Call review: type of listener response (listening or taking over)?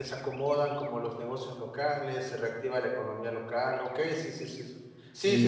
taking over